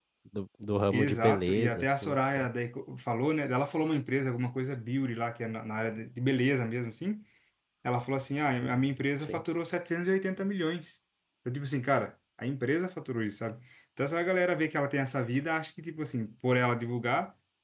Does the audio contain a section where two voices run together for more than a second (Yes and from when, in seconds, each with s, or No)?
Yes, from 0.9 s